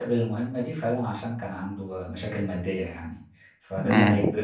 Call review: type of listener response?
listening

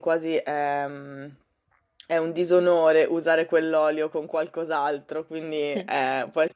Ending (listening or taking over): listening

